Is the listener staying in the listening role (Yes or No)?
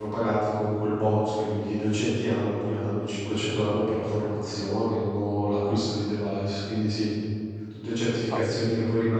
Yes